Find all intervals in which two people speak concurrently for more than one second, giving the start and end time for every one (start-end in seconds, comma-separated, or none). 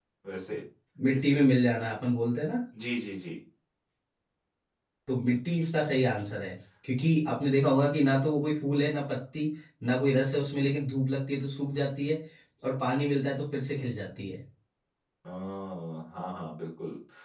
none